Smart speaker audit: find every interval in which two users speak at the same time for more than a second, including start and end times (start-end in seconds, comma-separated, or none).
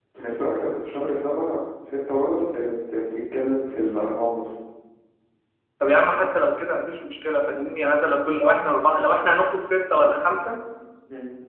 none